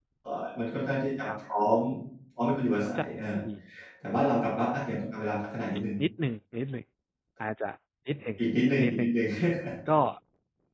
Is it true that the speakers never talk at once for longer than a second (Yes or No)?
Yes